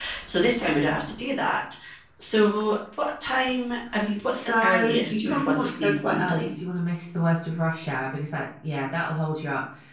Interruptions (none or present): present